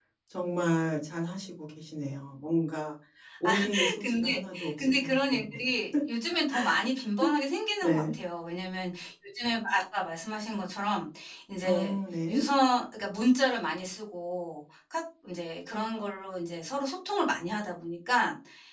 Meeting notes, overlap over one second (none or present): present